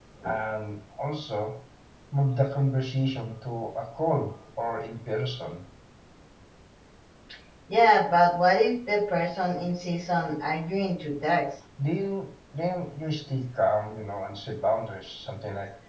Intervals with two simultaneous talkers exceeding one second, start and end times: none

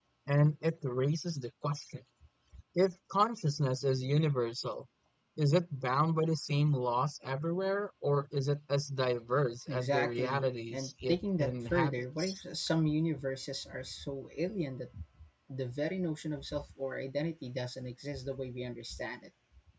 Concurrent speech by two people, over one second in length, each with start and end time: 9.7-12.4

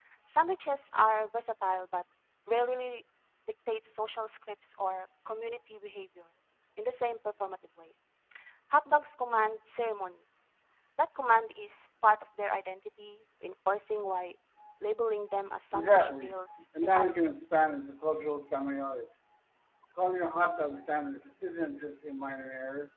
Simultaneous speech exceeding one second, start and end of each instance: 15.7-17.1

